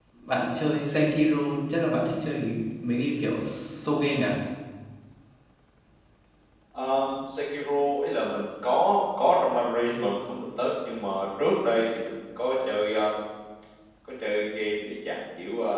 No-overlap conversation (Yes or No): Yes